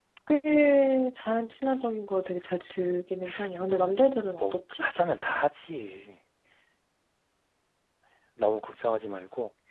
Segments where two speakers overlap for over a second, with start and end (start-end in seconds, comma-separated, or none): none